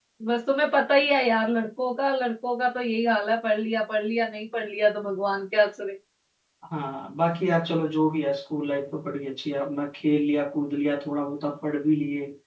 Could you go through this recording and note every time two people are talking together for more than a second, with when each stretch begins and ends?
none

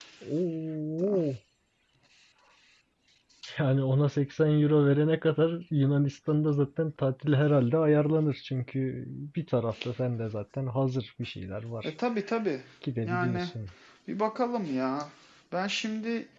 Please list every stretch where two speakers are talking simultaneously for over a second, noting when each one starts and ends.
none

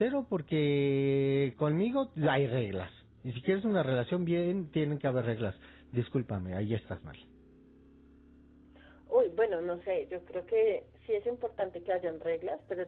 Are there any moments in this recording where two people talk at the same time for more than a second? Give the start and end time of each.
none

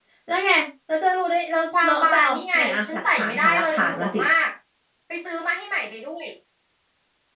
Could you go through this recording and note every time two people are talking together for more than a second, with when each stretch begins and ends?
1.8-4.2

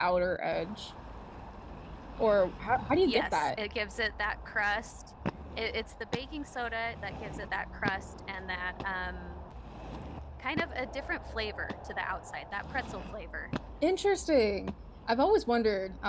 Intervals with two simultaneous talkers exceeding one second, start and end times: none

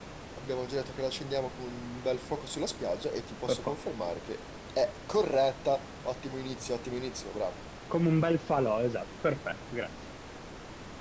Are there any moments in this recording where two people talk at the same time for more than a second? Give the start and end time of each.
none

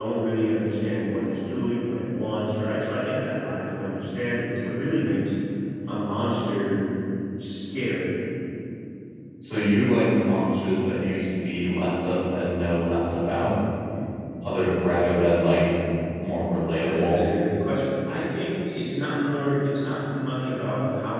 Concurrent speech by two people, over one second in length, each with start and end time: none

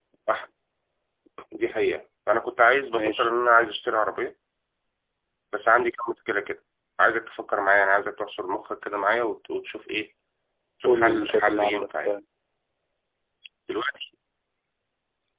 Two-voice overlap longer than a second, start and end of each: 10.9-12.1

